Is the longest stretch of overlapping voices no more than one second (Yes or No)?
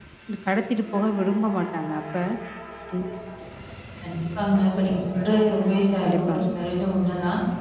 Yes